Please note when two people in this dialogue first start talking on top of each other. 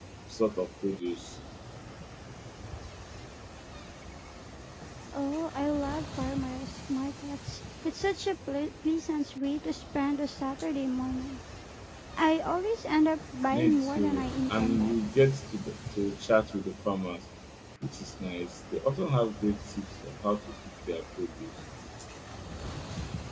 14 s

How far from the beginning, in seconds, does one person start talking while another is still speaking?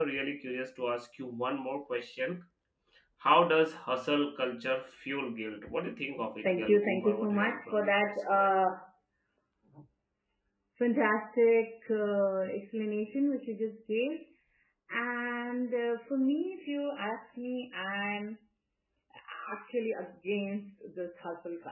6 s

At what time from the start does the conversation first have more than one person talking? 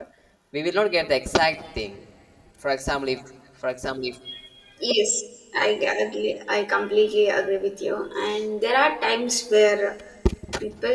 none

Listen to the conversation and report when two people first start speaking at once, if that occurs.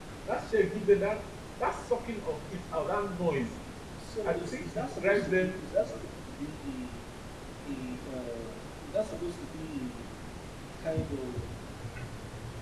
4 s

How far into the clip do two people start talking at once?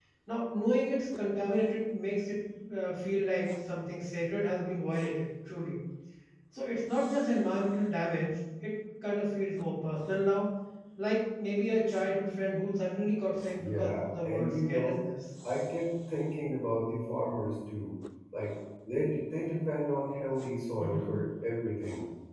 14 s

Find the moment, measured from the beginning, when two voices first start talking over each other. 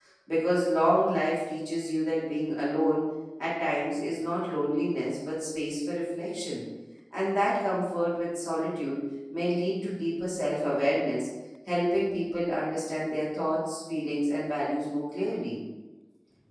none

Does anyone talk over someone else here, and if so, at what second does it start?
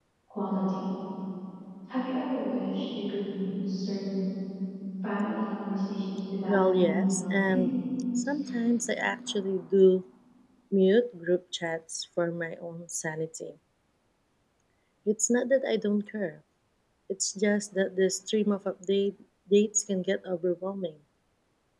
6 s

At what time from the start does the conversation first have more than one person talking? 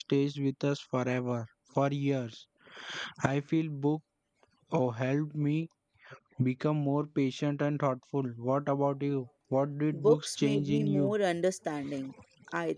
10 s

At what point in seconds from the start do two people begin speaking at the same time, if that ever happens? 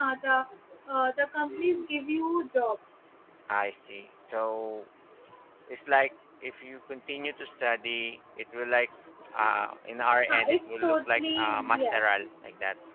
10 s

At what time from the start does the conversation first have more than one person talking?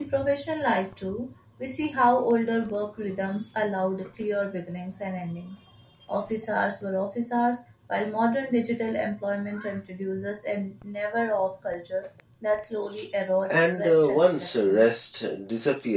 13 s

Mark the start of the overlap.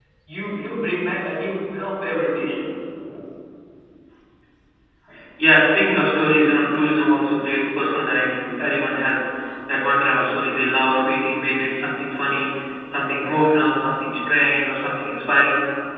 none

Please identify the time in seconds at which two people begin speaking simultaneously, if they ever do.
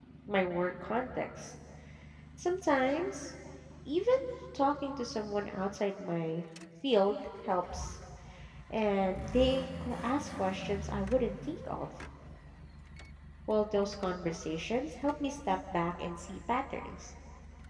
none

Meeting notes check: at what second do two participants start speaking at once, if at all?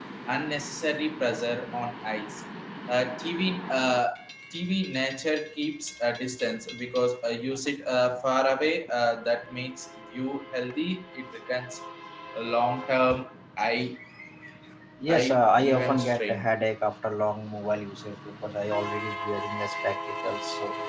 15 s

